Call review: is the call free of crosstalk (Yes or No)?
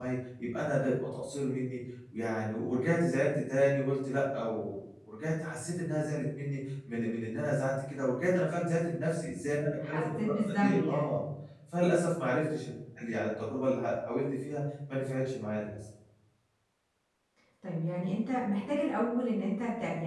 No